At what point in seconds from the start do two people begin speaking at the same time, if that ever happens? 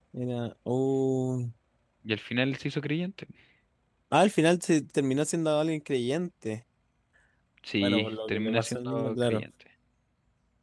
7.8 s

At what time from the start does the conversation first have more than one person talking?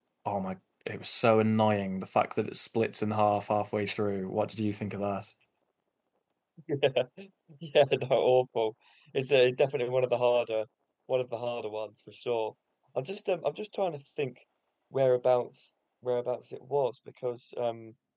none

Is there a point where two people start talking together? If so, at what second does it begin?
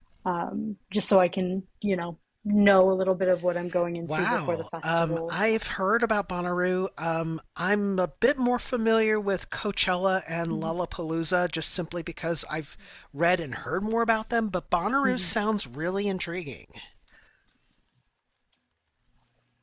4.0 s

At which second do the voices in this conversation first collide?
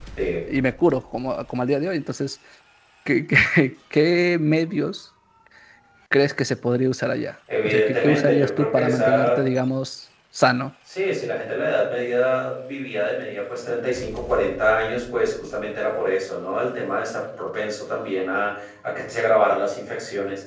7.5 s

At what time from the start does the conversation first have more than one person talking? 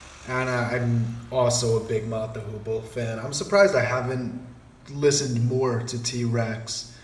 none

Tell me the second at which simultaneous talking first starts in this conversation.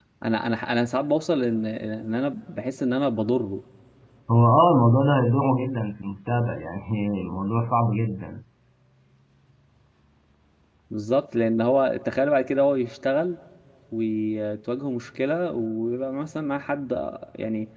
none

